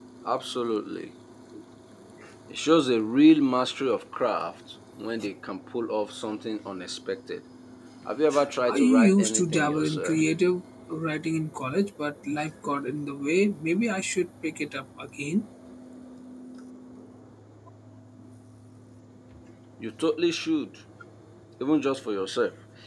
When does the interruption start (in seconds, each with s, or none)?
8.7 s